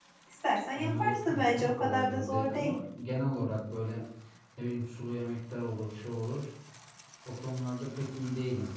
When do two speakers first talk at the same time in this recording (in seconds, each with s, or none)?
0.8 s